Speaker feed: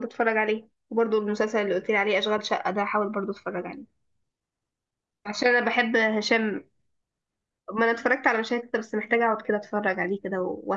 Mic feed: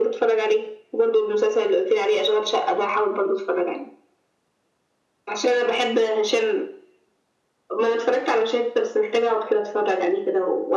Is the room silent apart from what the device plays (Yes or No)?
Yes